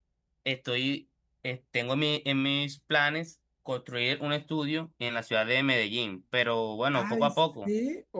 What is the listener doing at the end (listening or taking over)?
taking over